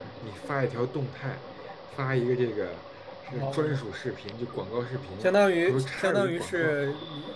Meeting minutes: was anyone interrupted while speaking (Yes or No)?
Yes